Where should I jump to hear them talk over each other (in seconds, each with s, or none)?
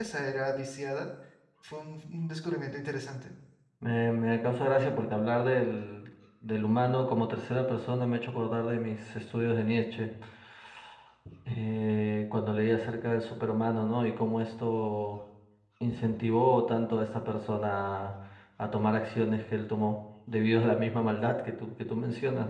none